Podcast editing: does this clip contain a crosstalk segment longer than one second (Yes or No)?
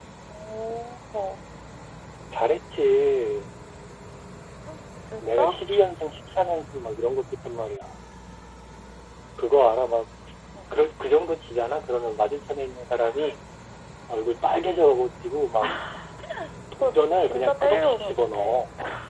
Yes